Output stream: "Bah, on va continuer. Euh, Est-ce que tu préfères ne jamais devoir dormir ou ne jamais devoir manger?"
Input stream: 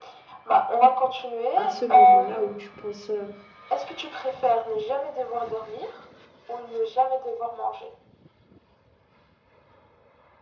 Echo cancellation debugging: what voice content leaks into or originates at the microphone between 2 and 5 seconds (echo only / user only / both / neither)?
both